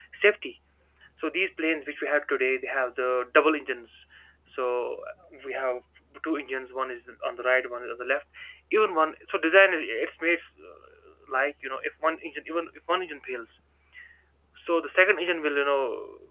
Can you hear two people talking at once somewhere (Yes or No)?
No